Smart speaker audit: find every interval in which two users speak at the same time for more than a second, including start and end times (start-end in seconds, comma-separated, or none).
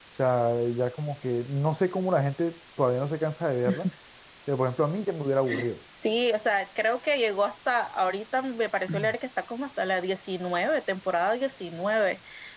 none